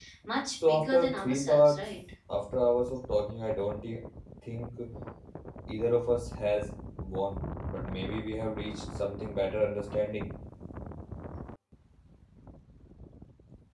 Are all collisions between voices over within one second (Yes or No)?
No